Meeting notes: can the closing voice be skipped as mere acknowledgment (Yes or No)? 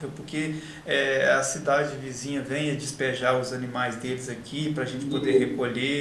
Yes